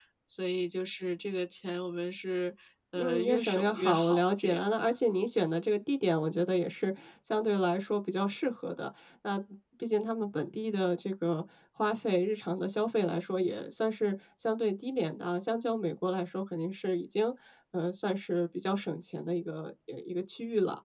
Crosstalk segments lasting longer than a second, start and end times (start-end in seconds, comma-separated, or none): 3.0-4.6